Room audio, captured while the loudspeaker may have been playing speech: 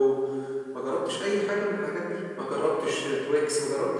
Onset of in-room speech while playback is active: none

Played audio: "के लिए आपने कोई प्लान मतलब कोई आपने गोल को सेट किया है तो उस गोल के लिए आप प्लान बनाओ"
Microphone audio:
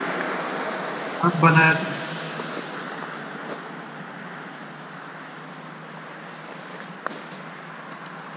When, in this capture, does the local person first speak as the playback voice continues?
1.3 s

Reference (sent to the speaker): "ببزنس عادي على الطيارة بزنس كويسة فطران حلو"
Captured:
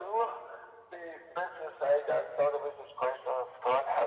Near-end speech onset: none

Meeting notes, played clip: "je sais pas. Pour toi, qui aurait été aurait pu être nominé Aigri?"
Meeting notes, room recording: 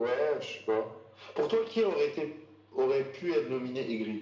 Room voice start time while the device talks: none

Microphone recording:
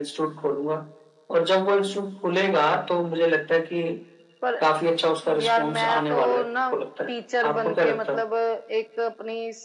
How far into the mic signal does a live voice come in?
none

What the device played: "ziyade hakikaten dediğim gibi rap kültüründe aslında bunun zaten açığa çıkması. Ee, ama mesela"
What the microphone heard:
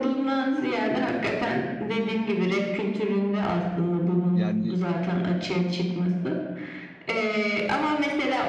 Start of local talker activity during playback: 4.3 s

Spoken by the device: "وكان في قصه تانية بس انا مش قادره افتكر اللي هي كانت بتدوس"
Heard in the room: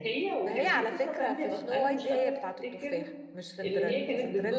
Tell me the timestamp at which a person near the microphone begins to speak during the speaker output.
0.4 s

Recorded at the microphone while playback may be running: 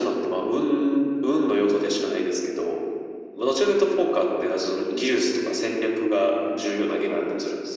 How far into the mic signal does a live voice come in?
none

